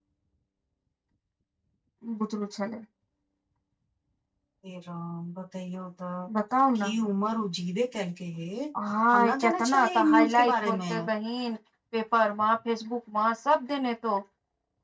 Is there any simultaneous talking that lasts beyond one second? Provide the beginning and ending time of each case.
9.2-10.9

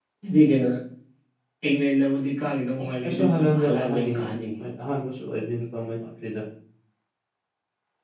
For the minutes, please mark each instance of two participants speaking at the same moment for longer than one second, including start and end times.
3.0-4.3

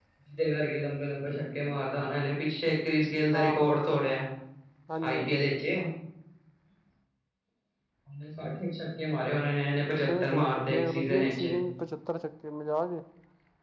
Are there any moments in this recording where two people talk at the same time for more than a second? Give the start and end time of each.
10.0-11.4

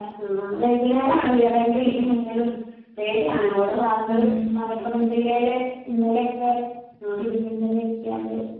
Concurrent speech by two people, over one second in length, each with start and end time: none

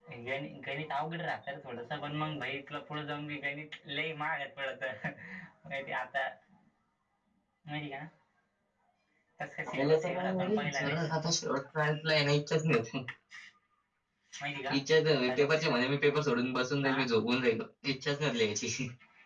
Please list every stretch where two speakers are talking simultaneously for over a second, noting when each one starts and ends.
9.7-11.1

